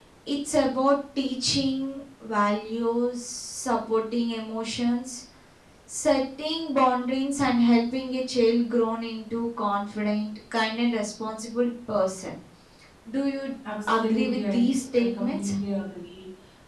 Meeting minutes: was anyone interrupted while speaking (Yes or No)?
Yes